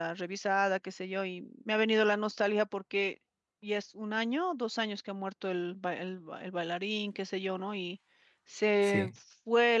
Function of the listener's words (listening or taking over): listening